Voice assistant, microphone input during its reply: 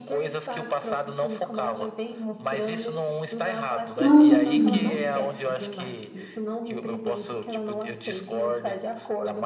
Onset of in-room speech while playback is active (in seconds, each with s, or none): 4.0 s